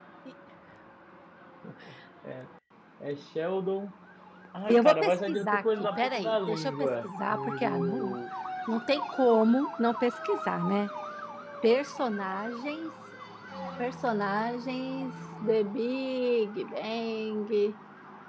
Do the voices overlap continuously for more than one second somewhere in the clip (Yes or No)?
Yes